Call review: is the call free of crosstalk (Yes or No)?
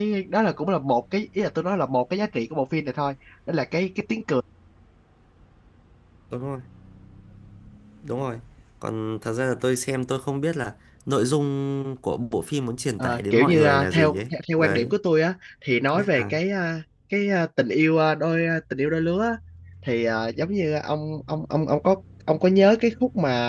No